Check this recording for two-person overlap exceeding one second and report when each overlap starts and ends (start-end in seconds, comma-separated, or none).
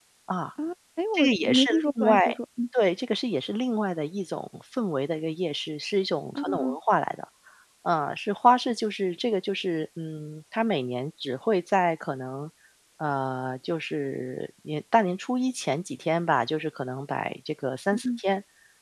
1.1-2.3